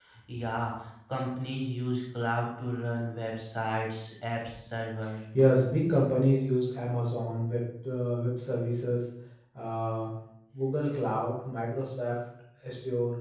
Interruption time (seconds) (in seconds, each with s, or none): none